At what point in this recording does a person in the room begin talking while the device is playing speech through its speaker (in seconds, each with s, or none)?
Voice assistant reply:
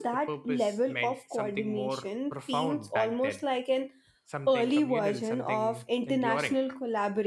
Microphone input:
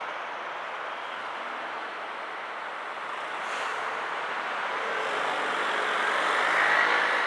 none